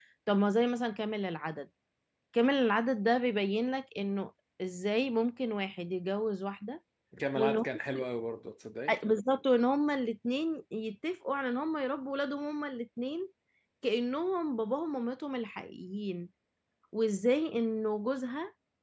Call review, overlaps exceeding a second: none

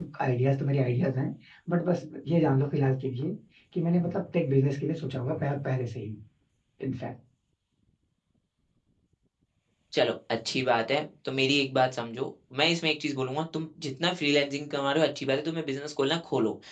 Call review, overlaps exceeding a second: none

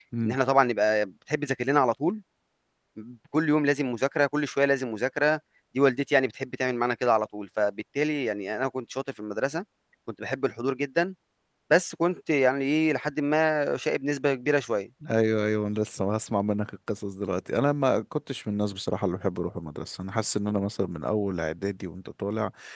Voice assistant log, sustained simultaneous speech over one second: none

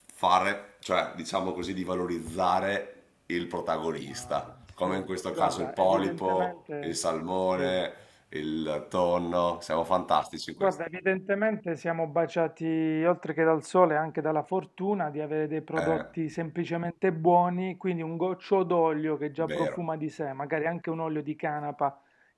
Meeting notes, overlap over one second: present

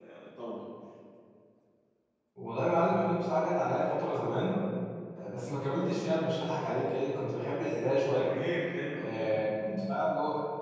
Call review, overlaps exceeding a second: none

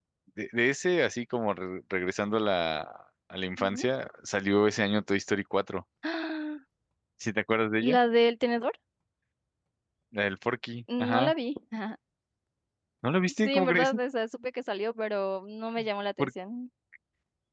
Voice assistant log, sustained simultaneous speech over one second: none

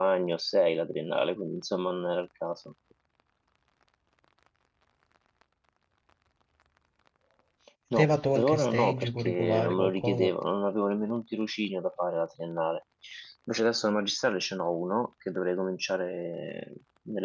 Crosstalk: present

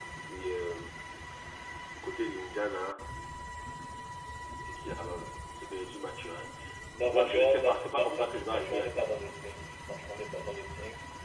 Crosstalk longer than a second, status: present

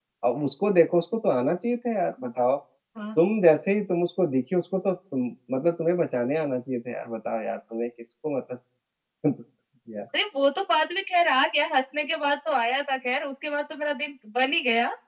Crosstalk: none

